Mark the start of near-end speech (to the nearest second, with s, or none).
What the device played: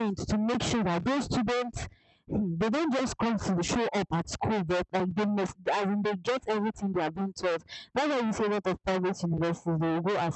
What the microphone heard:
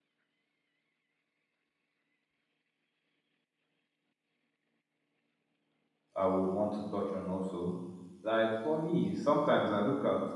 6 s